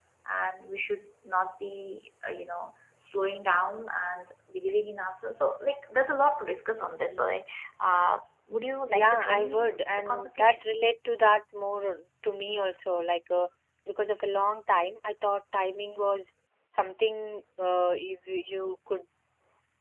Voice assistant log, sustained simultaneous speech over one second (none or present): present